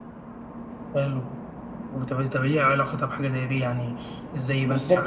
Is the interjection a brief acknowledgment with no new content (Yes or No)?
No